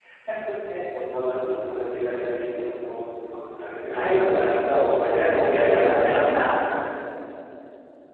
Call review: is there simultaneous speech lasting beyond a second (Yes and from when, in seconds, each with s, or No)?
Yes, from 3.9 s